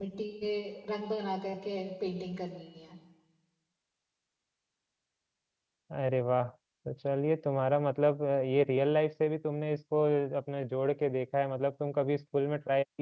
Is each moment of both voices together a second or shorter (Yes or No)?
Yes